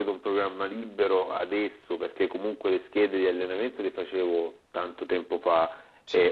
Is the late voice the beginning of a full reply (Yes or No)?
No